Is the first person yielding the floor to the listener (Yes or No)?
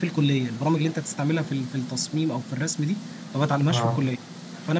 No